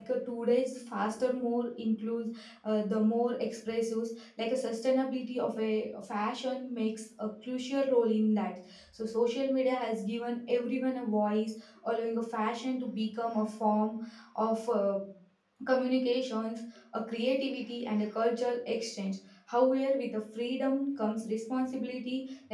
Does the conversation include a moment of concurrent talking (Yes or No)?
No